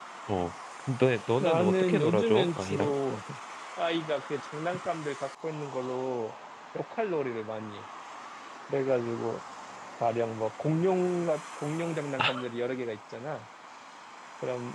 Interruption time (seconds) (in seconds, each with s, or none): 1.4 s